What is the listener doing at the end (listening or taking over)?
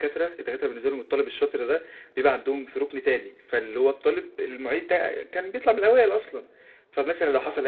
listening